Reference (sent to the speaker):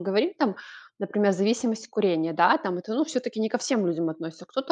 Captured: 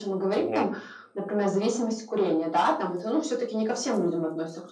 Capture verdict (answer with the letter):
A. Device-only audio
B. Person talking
B